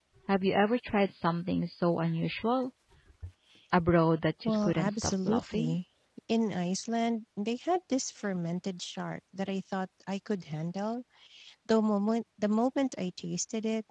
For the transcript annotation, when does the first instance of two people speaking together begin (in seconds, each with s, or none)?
4.4 s